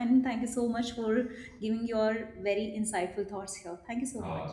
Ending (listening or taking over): taking over